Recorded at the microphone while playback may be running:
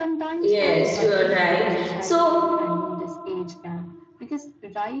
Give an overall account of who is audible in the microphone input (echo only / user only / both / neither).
both